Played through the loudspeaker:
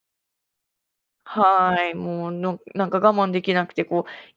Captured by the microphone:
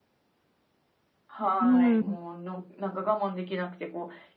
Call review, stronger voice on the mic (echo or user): user